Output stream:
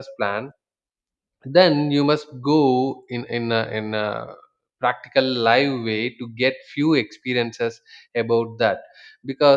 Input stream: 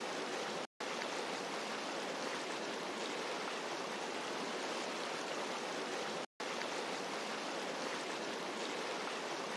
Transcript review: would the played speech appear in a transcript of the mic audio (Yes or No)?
No